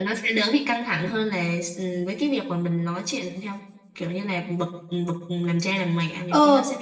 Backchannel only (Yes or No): No